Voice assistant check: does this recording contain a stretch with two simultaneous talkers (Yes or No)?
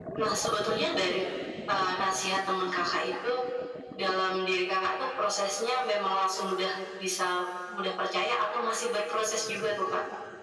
No